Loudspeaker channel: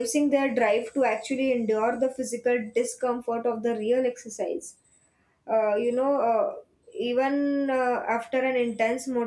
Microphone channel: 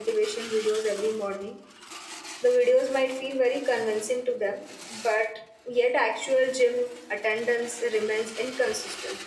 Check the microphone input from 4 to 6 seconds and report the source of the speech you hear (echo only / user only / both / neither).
user only